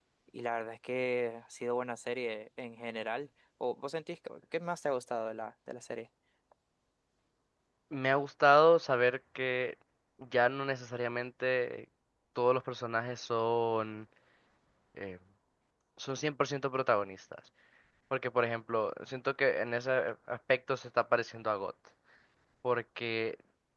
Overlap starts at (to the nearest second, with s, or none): none